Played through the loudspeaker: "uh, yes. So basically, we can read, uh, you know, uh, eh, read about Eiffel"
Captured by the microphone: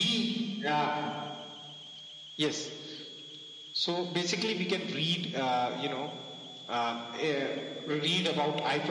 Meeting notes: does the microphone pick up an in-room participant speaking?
No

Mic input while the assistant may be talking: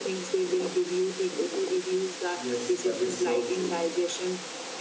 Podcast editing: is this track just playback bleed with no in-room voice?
No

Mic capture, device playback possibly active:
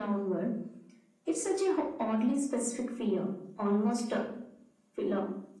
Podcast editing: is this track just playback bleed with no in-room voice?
Yes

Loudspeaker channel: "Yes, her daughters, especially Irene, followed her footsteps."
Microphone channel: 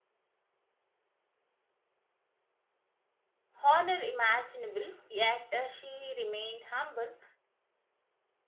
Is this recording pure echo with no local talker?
No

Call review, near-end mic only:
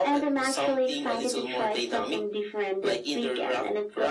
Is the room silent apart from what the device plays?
Yes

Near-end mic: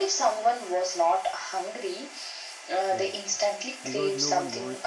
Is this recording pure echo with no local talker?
No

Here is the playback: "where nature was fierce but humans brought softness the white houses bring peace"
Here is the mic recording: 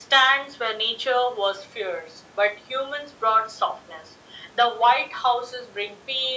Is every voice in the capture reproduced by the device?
Yes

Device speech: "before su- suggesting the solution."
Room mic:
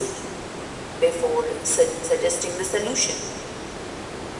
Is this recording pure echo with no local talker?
Yes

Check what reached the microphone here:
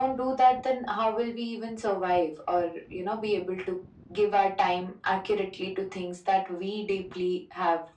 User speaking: No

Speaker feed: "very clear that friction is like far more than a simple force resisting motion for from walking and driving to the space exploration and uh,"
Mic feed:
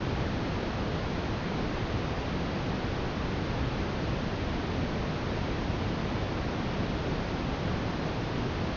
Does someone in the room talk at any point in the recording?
No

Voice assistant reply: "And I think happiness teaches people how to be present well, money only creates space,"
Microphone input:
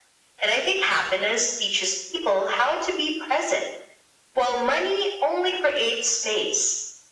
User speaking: No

